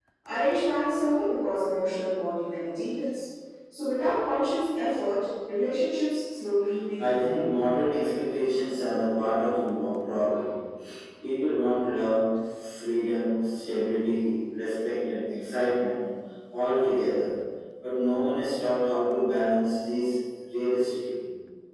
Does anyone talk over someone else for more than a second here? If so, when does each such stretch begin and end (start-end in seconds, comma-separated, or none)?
none